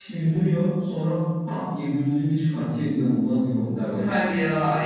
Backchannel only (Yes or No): No